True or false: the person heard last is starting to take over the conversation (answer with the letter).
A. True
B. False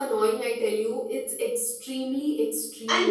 A